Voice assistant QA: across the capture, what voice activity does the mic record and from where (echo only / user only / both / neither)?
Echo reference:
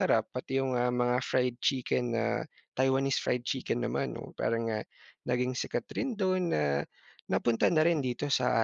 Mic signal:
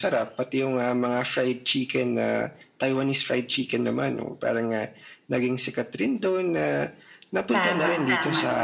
both